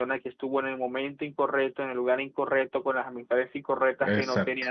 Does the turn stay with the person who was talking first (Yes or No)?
Yes